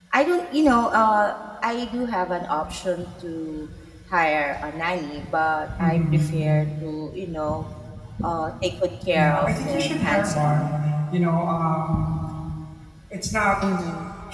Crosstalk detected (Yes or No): Yes